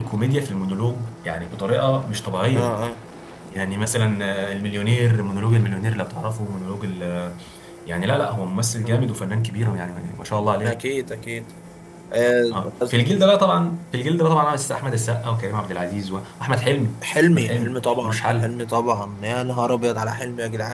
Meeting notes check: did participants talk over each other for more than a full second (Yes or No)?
Yes